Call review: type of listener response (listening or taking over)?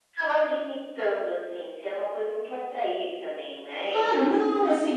taking over